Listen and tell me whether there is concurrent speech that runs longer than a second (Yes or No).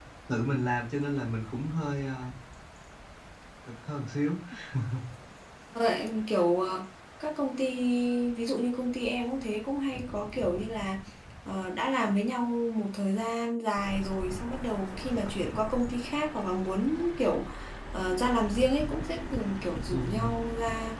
No